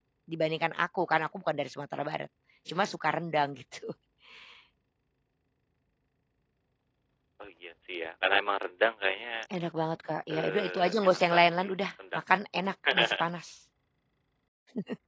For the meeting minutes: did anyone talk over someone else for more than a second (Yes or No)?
Yes